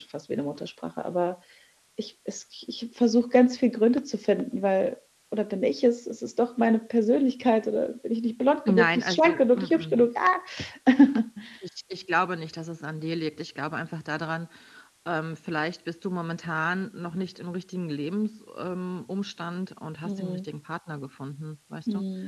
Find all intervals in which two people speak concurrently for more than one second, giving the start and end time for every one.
8.7-10.1

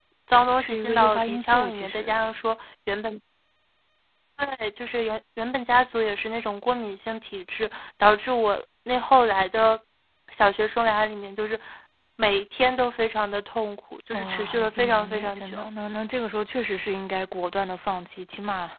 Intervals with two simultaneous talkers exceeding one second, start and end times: 0.6-2.1, 14.1-15.7

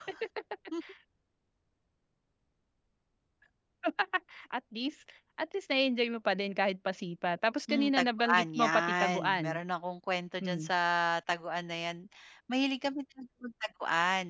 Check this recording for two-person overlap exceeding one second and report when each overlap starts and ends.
7.7-9.6

